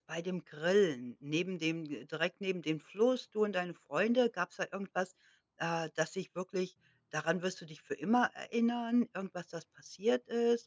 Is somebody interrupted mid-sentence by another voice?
No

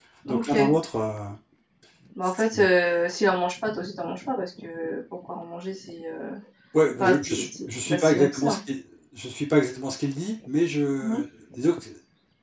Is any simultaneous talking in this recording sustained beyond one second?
Yes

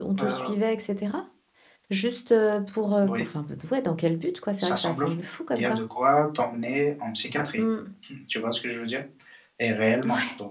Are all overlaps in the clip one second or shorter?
No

